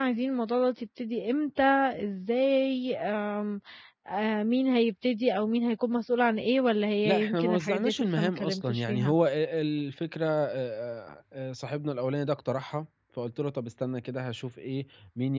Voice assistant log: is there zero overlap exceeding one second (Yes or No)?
No